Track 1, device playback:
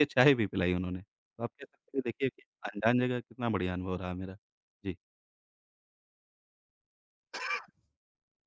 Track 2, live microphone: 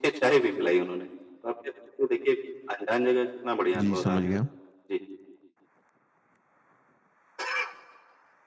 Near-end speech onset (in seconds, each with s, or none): 3.8 s